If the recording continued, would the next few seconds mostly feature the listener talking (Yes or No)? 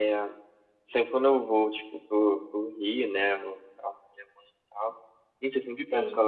No